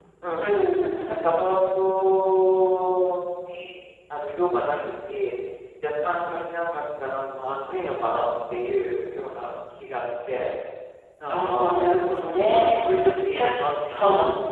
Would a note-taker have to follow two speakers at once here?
Yes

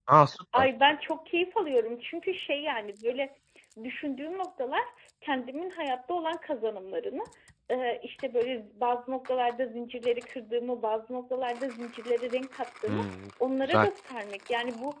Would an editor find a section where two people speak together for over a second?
No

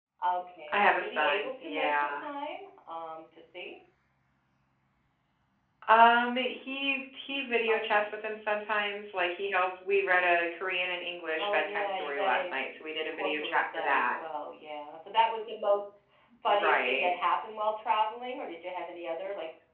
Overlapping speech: Yes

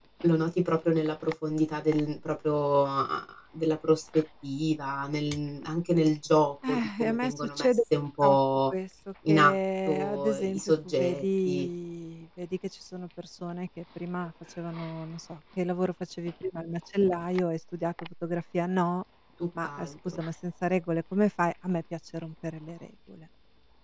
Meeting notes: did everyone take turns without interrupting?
No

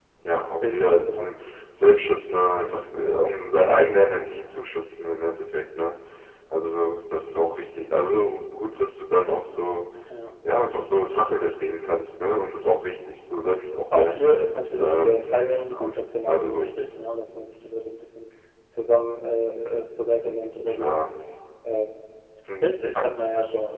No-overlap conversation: No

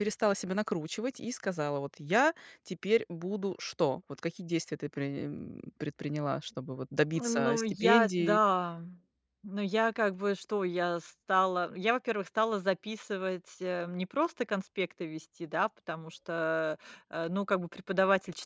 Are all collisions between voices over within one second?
No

